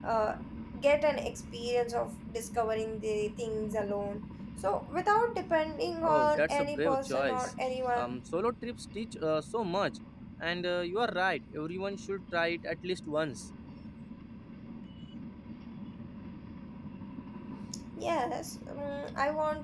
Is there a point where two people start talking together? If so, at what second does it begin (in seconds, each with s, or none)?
6.1 s